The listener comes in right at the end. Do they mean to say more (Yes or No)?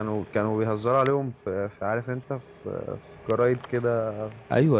Yes